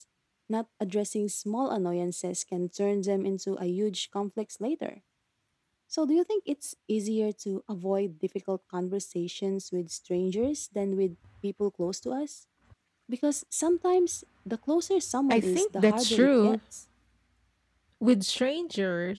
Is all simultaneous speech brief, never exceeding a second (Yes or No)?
No